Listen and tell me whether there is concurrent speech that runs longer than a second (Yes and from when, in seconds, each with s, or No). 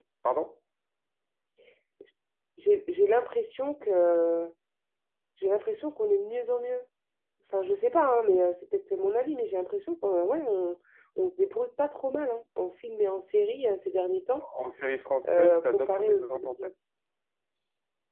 Yes, from 15.3 s